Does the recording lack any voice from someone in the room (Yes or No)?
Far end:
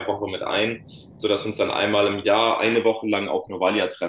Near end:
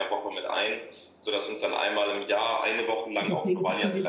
No